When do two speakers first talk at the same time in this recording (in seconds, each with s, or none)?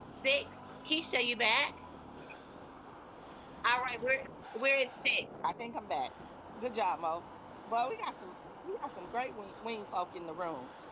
none